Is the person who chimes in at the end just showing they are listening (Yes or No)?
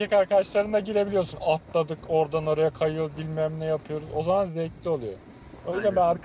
Yes